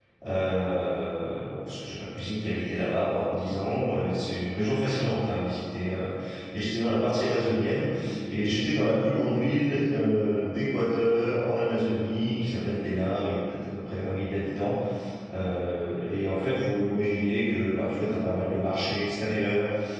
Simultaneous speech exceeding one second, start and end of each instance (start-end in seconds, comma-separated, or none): none